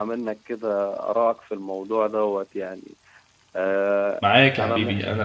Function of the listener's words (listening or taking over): taking over